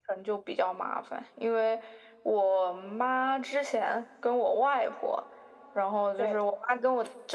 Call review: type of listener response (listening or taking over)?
listening